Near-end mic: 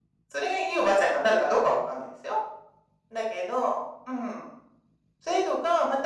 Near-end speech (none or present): none